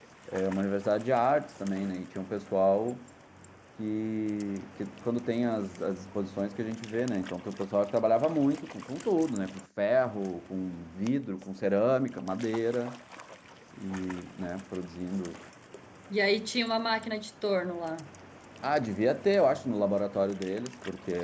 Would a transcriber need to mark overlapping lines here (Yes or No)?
No